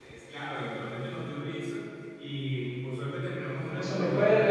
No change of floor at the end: No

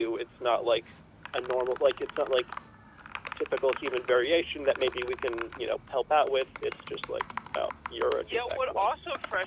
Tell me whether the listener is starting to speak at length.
Yes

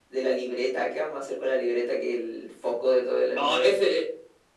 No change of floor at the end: No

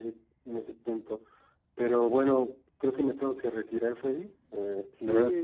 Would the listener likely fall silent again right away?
No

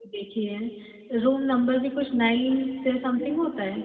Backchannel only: No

